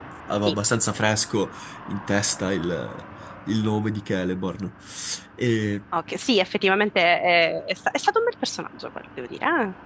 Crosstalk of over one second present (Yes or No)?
No